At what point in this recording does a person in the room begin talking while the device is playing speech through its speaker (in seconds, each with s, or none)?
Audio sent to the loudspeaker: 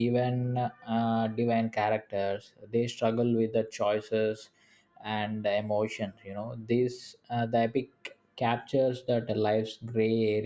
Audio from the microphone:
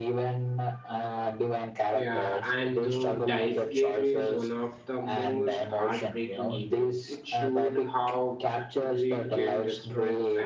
1.9 s